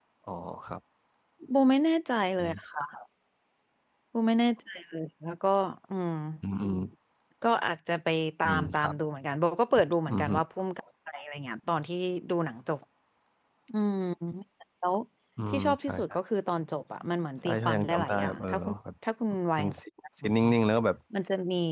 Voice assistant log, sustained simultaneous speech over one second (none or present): present